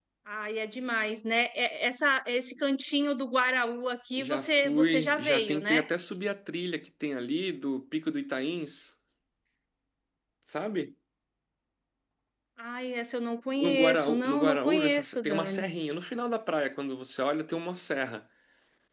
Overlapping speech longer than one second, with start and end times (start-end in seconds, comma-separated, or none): 4.2-5.8, 13.6-15.6